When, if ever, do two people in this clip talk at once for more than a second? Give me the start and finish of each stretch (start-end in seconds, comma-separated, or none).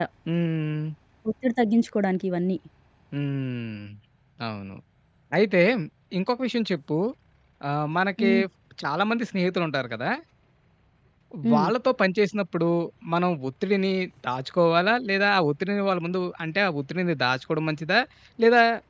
none